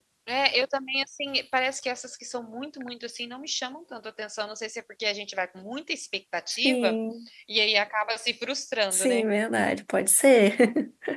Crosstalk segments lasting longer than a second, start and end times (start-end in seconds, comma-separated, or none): none